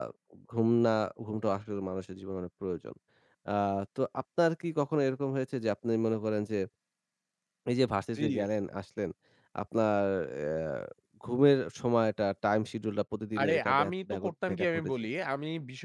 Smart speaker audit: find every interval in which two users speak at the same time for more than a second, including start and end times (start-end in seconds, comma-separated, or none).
13.4-14.9